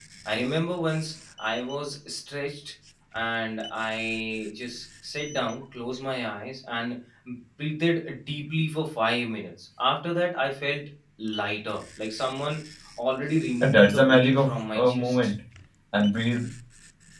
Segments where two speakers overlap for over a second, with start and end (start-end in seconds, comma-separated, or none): 13.6-15.3